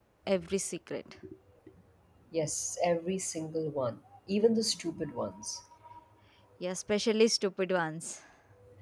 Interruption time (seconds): none

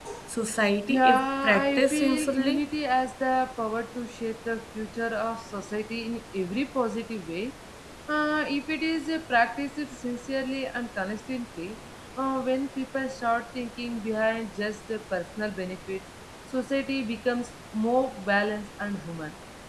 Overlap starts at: 0.9 s

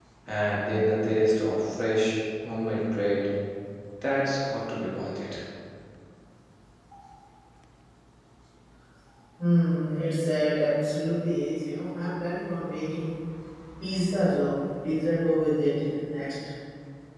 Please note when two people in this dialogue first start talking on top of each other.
none

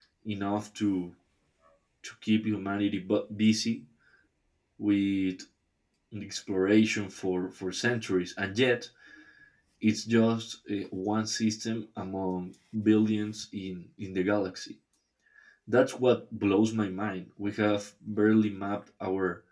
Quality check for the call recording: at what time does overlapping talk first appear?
none

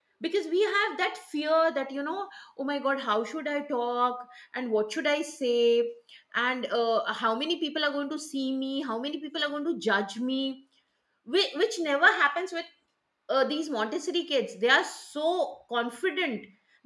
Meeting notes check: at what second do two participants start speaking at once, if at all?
none

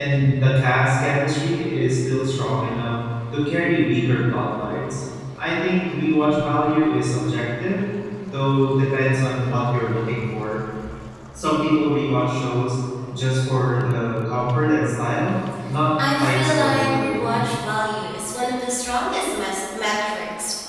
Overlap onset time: 16.0 s

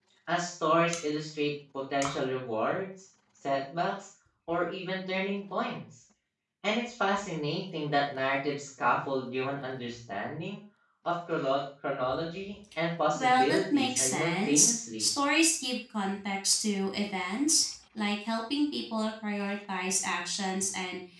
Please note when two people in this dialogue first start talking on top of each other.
13.2 s

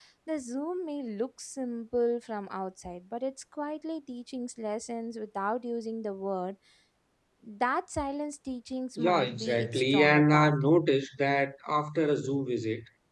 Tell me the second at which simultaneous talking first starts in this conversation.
9.0 s

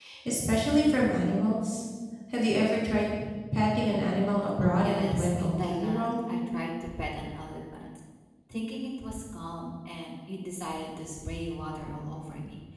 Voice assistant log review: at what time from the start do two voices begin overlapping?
4.6 s

